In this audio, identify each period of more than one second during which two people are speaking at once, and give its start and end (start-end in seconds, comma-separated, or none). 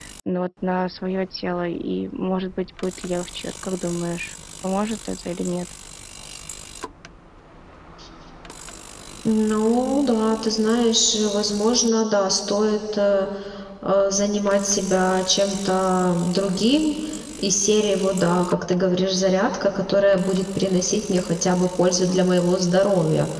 none